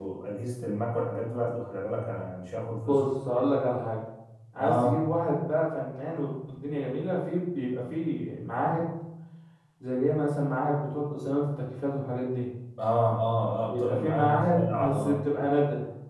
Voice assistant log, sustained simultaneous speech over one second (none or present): present